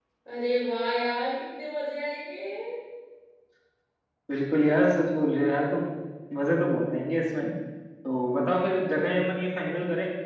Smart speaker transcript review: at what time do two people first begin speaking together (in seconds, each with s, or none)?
none